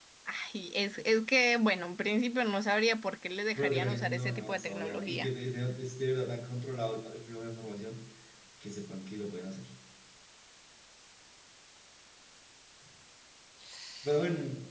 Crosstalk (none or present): present